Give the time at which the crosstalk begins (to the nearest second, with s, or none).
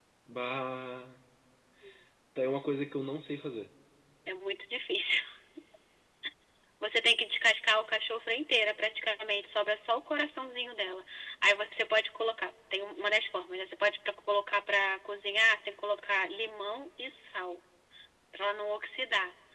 none